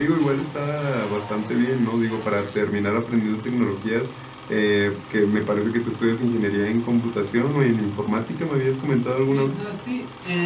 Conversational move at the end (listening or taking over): taking over